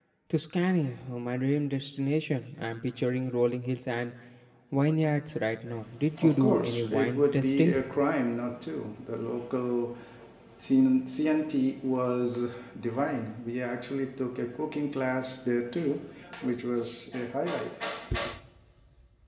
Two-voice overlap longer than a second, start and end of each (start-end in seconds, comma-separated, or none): 6.2-7.8